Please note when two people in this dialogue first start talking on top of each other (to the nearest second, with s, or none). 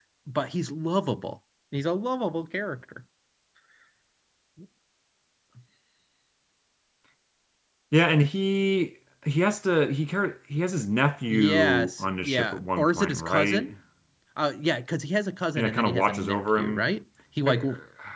11 s